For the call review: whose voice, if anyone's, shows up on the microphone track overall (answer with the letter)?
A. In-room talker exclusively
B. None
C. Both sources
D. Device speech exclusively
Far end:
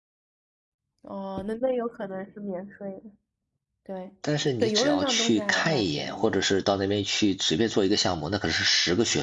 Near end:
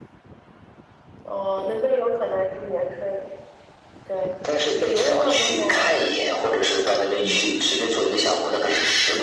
C